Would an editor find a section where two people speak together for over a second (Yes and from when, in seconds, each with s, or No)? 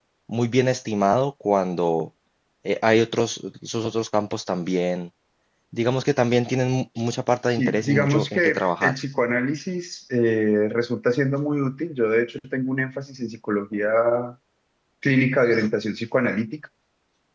Yes, from 7.5 s